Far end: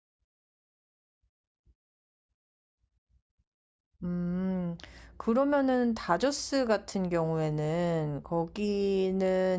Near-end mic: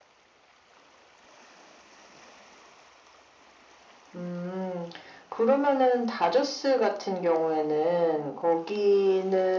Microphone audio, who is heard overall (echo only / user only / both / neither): echo only